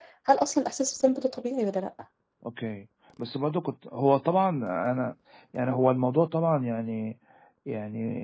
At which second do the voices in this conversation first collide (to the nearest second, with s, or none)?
none